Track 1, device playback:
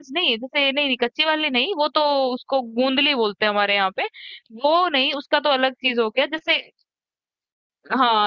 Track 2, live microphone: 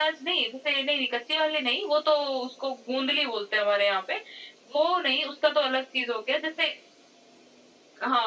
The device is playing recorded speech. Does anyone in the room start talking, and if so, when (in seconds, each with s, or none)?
none